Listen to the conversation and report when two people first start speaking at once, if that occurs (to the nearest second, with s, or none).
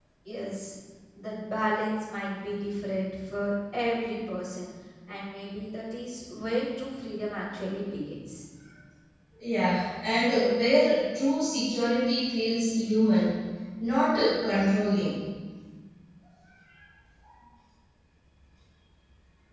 none